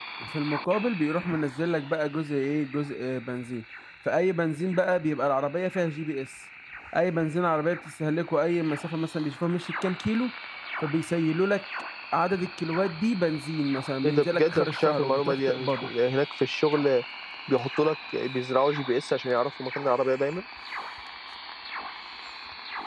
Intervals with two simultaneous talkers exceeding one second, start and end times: 14.1-15.9

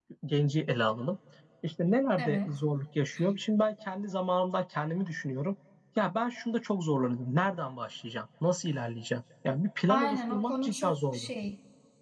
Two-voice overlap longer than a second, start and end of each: 9.9-11.3

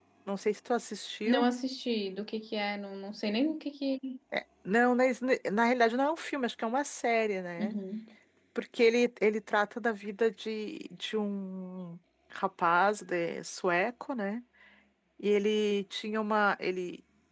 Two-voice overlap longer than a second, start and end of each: none

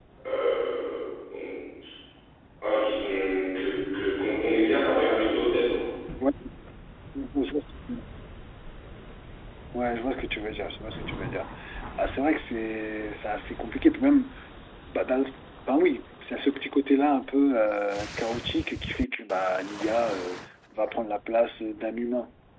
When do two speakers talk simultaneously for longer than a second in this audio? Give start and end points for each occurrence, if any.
none

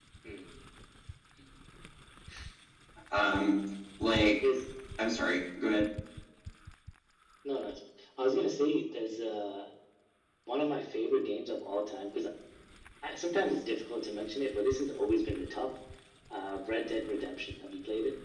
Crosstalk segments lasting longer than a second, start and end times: none

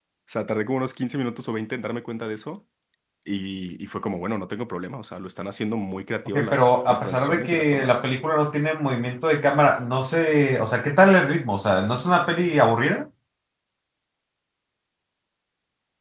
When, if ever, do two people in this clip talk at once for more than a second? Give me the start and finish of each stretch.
6.3-8.0

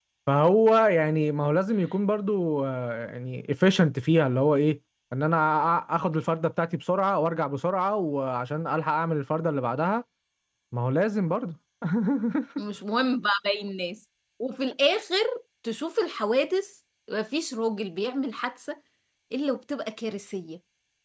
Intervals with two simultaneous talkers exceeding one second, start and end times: none

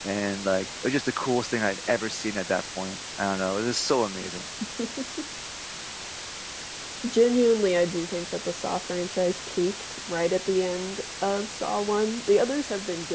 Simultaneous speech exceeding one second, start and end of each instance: none

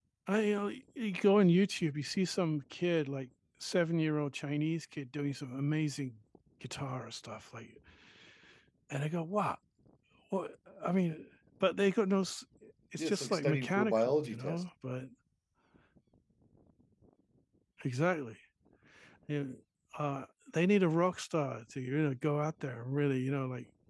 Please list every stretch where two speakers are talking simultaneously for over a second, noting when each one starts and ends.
13.0-14.6

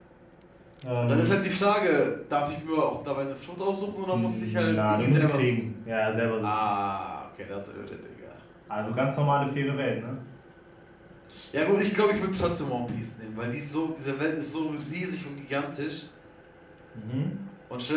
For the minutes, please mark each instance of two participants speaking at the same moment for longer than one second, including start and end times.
4.1-5.6

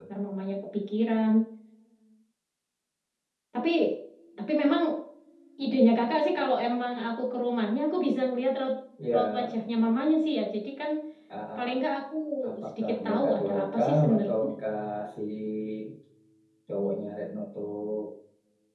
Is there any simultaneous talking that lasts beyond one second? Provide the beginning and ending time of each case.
12.7-14.5

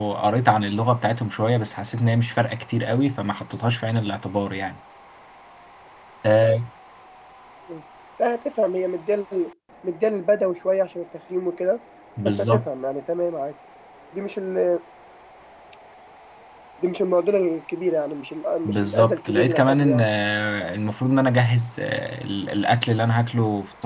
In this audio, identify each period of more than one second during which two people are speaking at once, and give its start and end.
18.6-20.1

